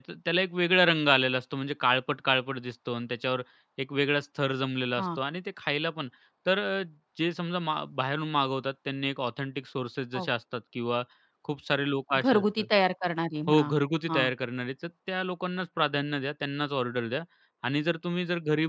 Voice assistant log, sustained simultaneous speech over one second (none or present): none